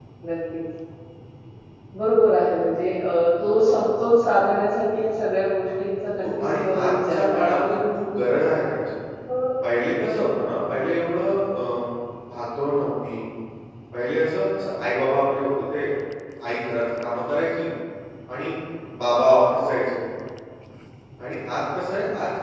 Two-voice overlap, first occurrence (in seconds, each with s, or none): 6.2 s